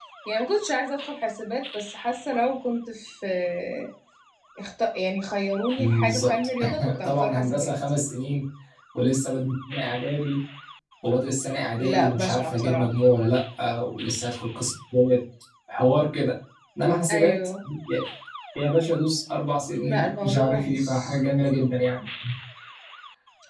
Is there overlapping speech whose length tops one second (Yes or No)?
Yes